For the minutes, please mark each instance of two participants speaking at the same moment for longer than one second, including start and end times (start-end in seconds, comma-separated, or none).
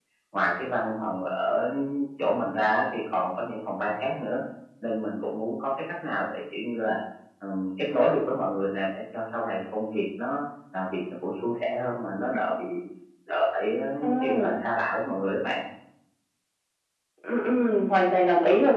none